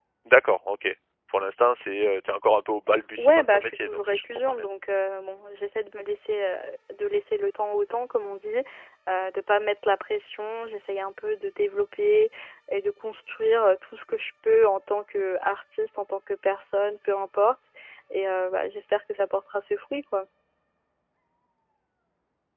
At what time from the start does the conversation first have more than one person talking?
3 s

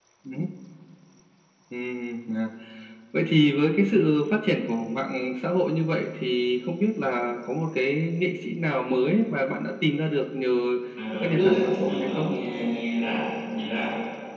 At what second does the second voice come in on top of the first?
11 s

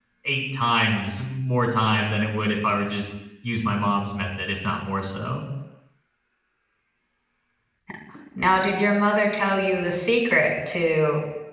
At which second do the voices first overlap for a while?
none

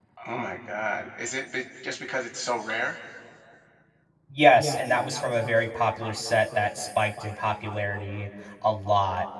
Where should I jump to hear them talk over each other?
none

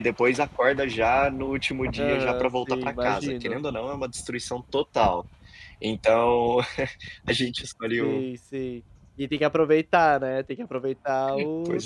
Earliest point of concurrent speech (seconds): 2 s

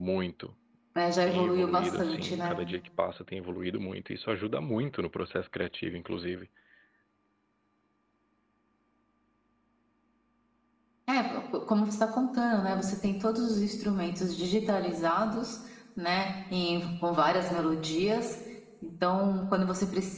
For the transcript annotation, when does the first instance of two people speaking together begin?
1 s

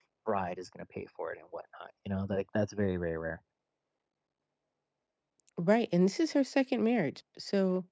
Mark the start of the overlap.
none

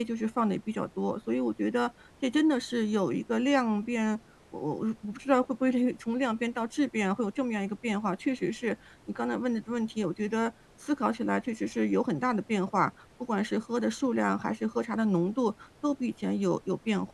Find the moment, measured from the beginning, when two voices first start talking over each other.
none

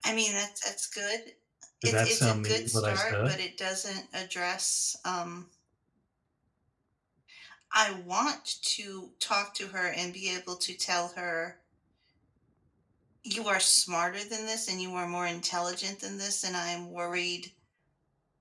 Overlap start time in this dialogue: 2 s

